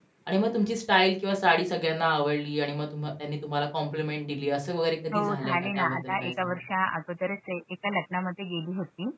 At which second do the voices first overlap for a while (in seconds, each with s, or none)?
5.1 s